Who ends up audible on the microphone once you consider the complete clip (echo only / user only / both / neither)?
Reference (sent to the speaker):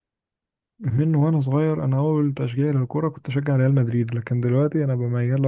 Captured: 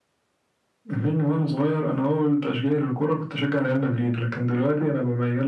echo only